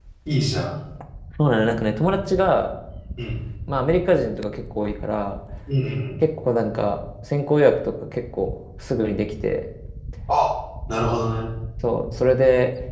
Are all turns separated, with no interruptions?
Yes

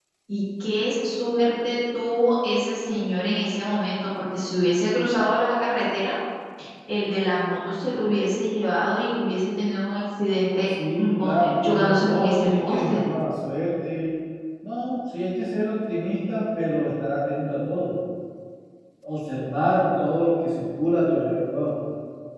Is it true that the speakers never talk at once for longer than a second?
No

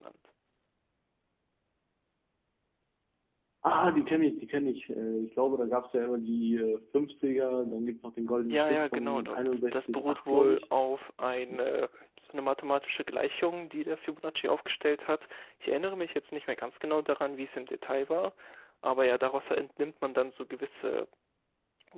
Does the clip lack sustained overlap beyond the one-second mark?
No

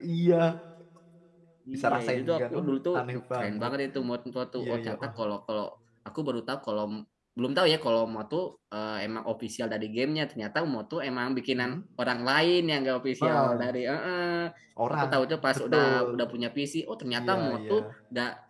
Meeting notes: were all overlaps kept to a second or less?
No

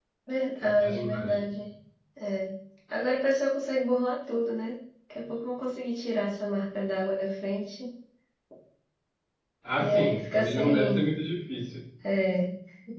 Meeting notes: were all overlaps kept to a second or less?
No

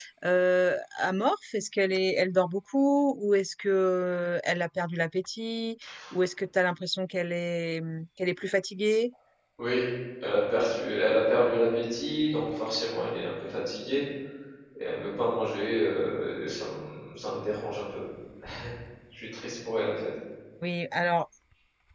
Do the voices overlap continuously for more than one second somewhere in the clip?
No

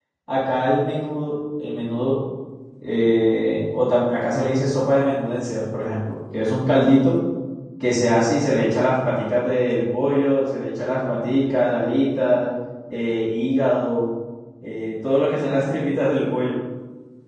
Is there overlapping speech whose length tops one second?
No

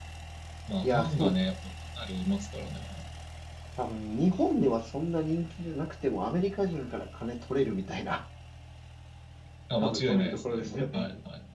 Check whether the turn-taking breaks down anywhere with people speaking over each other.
Yes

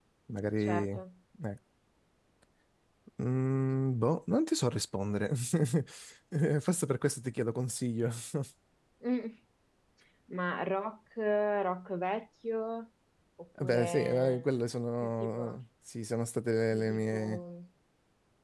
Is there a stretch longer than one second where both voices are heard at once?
Yes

